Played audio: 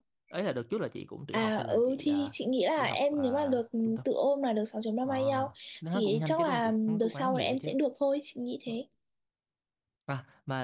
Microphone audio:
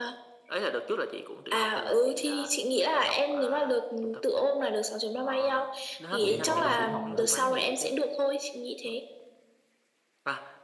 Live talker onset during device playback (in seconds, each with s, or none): 6.2 s